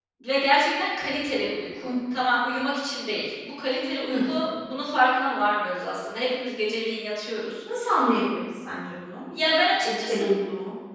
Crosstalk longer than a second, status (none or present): none